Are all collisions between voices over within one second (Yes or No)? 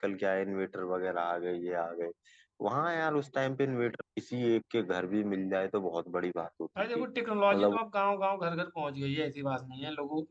Yes